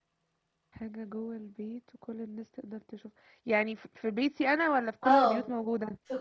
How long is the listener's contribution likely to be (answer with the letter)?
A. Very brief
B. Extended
B